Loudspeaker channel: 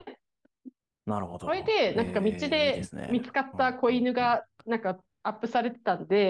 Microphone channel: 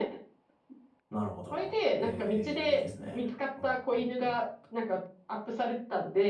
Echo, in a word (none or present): present